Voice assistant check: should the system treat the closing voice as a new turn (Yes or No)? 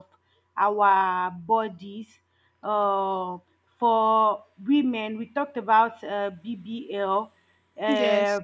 No